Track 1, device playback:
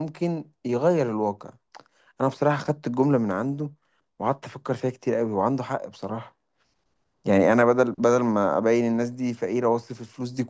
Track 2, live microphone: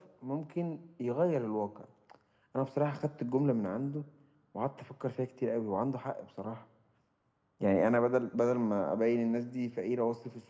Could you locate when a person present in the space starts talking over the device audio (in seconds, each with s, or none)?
none